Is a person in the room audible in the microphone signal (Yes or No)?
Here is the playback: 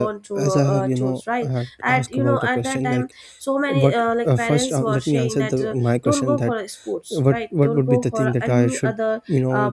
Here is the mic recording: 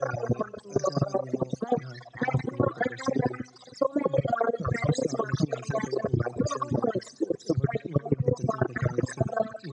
No